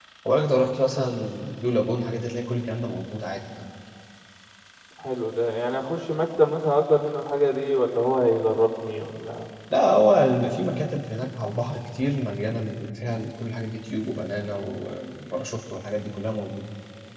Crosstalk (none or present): none